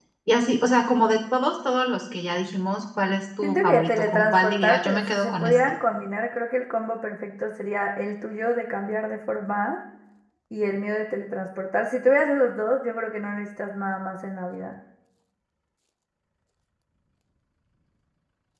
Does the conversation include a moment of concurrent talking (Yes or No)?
Yes